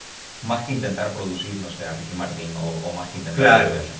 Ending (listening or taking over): listening